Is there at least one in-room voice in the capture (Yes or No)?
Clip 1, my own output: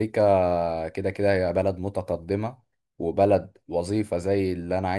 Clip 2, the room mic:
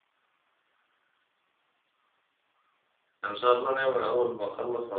Yes